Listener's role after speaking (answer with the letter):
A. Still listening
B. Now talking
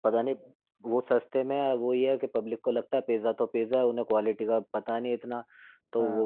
A